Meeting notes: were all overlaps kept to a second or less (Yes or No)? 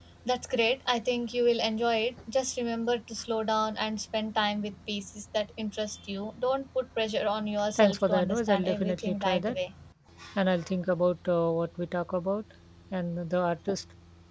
No